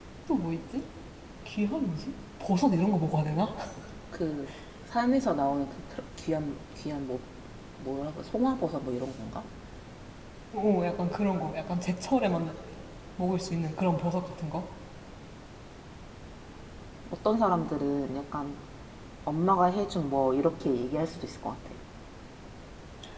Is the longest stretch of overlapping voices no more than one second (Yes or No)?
Yes